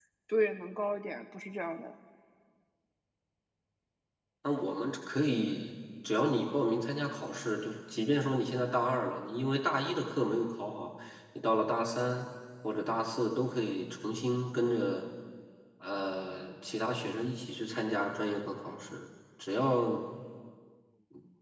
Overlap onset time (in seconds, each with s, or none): none